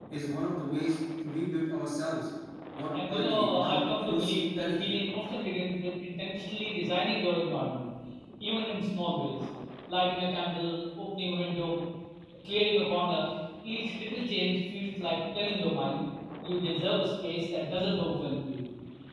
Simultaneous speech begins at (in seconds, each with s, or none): 2.9 s